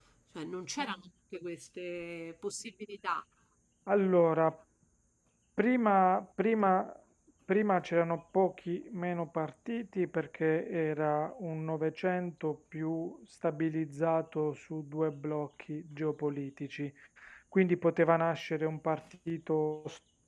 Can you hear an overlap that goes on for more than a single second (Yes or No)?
No